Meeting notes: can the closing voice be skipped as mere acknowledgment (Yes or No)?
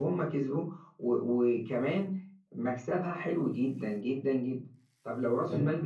Yes